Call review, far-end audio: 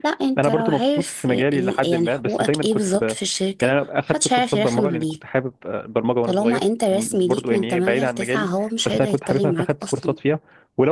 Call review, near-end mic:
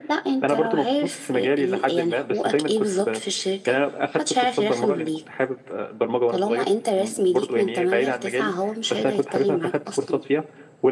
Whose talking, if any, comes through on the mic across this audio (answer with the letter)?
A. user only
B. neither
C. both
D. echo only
D